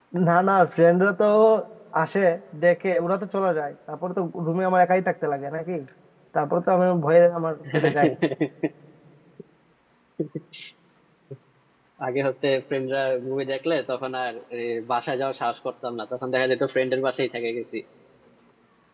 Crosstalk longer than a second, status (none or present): none